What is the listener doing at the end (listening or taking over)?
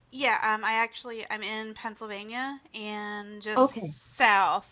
listening